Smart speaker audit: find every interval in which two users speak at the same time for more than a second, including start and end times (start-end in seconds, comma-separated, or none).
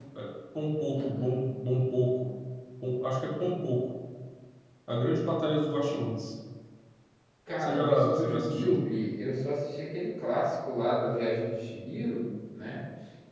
7.6-8.8